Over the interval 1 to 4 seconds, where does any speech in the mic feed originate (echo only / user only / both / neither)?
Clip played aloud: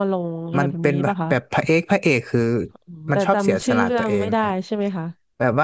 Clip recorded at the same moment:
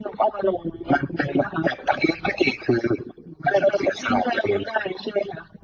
echo only